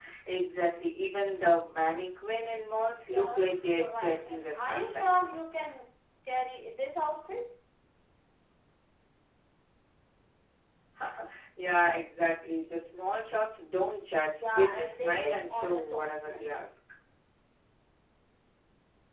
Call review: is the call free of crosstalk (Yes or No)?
No